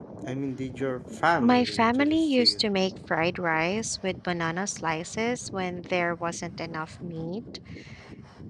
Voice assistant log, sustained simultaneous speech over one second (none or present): present